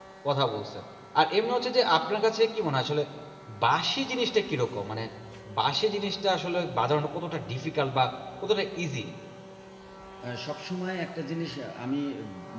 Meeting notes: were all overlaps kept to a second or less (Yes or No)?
Yes